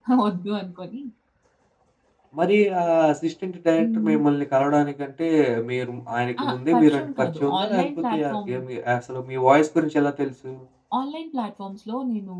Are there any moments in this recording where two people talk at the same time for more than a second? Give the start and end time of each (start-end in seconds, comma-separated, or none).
6.4-8.5